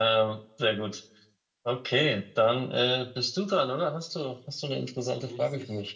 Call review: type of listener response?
taking over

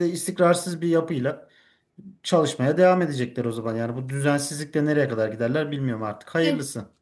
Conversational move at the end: taking over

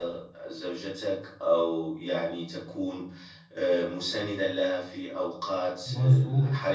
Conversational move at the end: listening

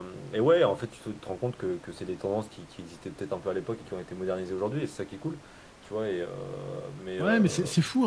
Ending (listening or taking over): taking over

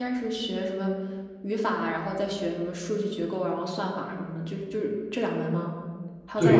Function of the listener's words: taking over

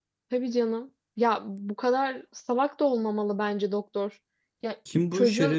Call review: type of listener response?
taking over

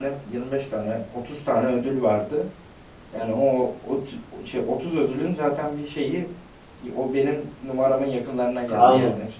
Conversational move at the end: taking over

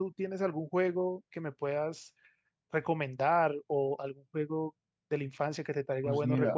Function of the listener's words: taking over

